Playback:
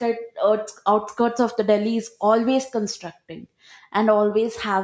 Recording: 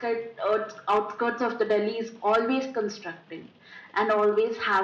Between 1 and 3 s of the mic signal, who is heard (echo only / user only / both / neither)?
echo only